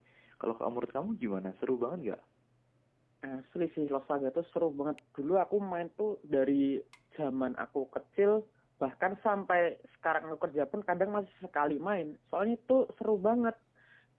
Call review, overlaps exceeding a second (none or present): none